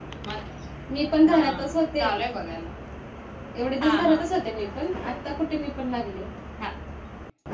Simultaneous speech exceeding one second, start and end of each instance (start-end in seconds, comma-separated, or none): none